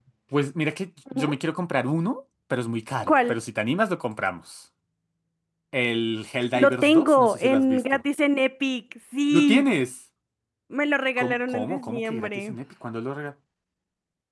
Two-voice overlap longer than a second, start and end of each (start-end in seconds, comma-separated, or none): 6.5-8.0, 11.2-12.6